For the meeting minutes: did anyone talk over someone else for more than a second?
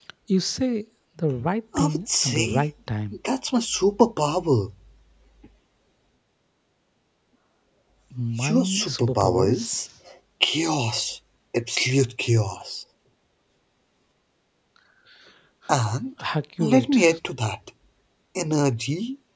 Yes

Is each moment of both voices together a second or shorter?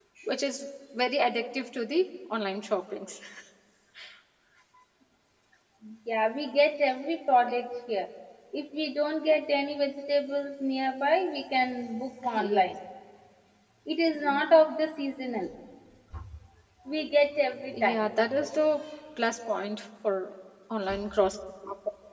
Yes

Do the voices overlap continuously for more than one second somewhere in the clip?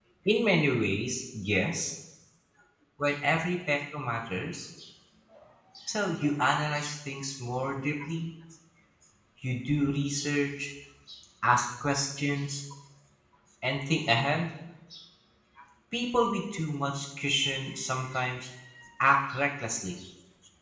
No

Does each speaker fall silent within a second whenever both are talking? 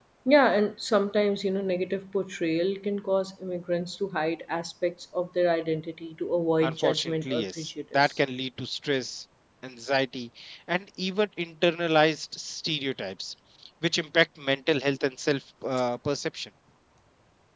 No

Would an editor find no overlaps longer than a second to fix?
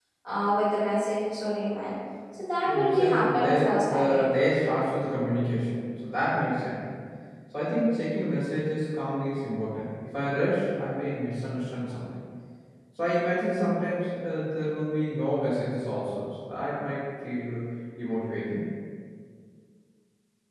No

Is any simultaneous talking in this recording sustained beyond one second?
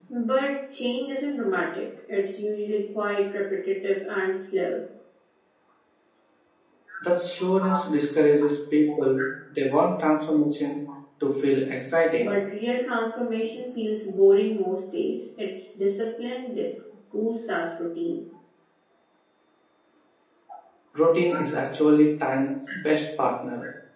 No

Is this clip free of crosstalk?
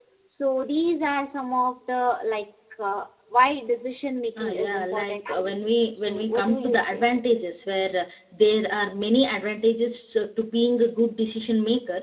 No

